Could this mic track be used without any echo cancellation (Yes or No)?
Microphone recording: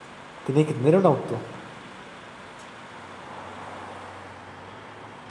Yes